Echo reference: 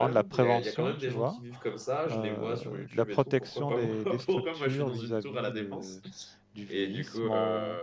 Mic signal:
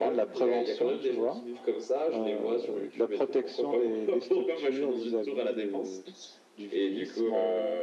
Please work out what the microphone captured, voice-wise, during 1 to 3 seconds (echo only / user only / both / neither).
echo only